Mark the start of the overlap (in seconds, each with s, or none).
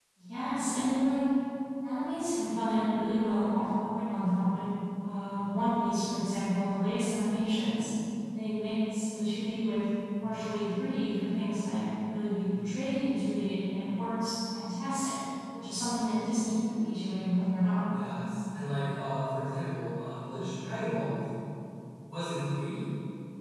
none